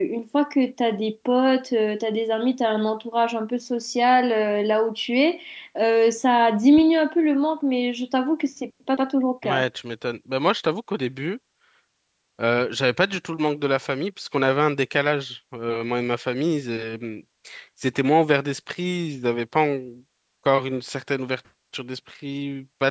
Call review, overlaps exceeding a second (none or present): none